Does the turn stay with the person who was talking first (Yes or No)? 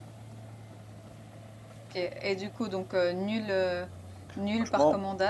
No